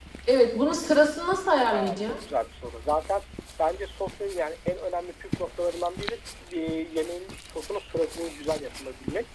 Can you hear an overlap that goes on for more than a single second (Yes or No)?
No